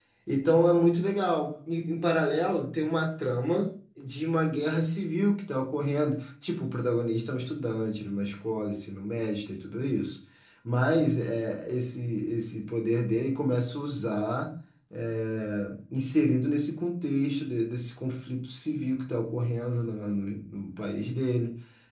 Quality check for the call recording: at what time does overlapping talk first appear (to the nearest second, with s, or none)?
none